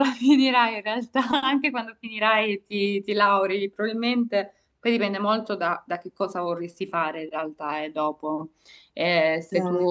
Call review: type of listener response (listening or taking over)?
listening